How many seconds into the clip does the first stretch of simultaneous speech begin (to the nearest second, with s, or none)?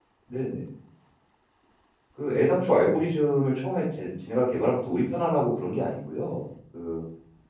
none